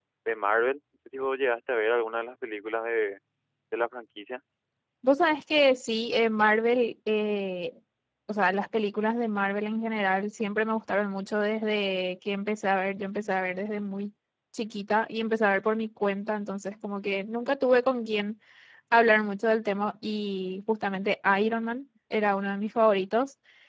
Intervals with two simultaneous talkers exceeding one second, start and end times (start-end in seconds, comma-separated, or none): none